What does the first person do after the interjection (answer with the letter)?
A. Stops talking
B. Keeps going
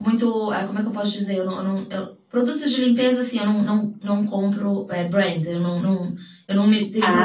B